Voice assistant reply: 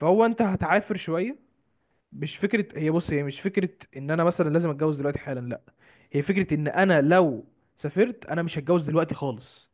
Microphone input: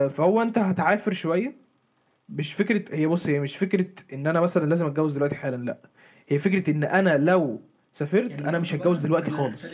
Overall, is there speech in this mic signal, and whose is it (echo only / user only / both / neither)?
both